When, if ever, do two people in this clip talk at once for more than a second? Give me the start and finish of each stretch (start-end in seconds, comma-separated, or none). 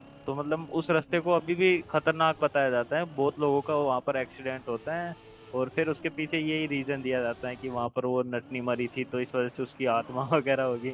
none